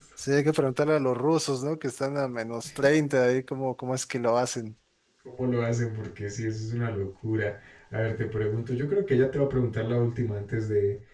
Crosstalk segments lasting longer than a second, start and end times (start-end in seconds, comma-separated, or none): none